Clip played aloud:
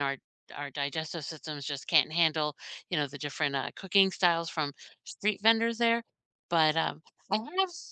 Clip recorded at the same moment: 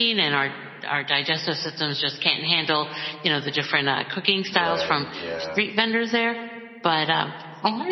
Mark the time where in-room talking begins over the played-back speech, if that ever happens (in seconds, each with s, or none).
4.5 s